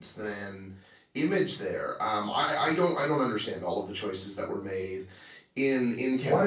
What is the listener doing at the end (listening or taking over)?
taking over